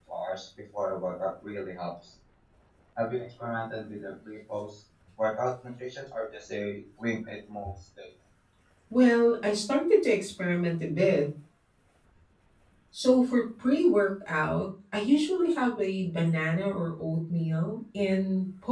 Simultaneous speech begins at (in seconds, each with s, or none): none